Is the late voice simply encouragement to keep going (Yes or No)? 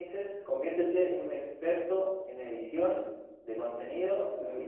Yes